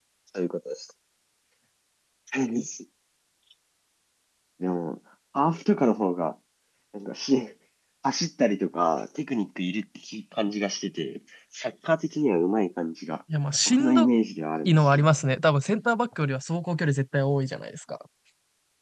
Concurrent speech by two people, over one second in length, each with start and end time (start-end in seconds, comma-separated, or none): none